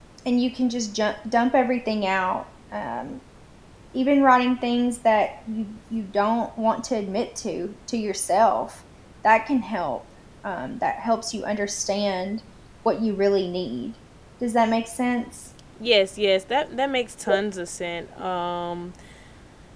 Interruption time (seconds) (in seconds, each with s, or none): none